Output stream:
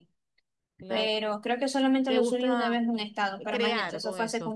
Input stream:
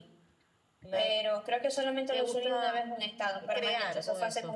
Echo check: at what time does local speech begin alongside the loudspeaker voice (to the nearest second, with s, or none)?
none